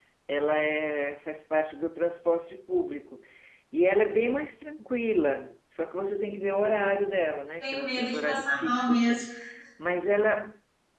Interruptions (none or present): present